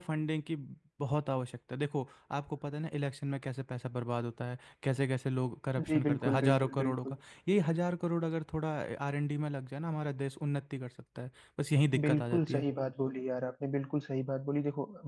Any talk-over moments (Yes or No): Yes